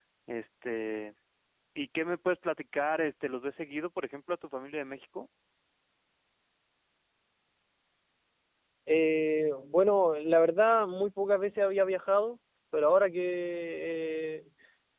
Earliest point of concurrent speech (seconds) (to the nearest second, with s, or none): none